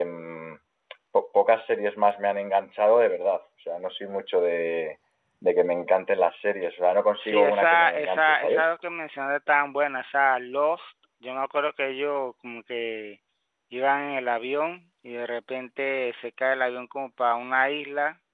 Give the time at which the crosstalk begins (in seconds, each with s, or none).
7.2 s